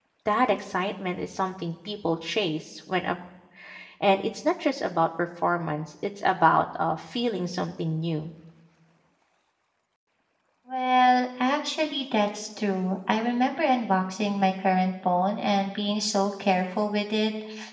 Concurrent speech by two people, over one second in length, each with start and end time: none

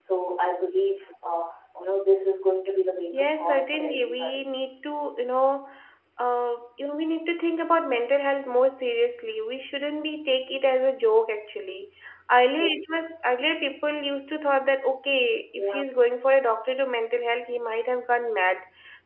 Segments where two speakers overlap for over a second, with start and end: 3.1-4.5

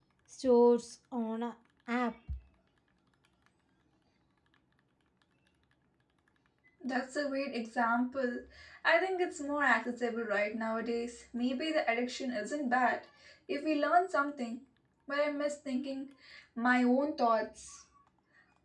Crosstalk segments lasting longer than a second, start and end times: none

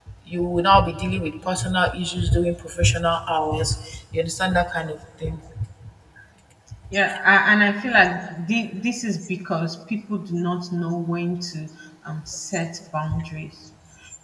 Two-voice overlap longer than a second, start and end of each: none

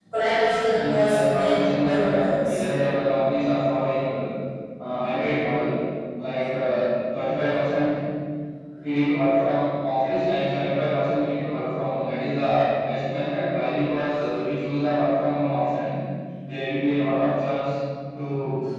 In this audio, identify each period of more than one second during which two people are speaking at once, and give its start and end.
0.8-2.6

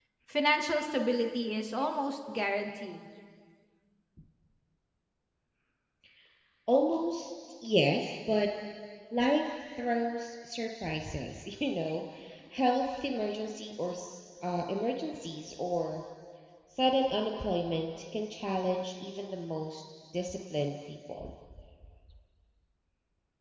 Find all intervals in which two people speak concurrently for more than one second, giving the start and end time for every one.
none

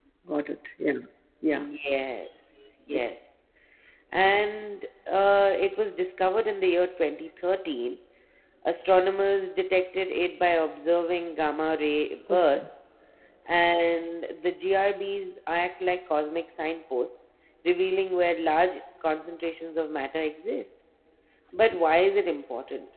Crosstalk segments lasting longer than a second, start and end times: none

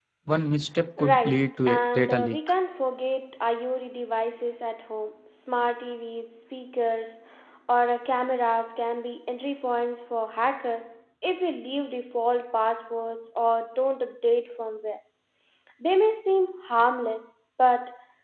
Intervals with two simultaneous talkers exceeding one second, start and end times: 1.0-2.4

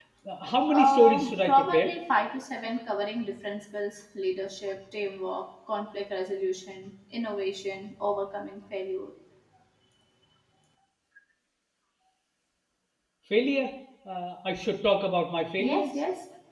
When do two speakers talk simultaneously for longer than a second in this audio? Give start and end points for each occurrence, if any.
0.7-1.9

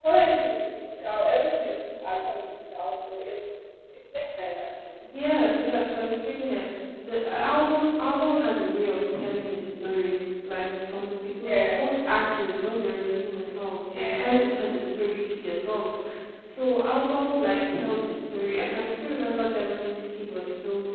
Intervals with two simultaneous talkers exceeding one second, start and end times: none

